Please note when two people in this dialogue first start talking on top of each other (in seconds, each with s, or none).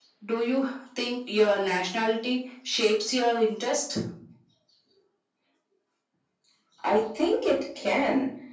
none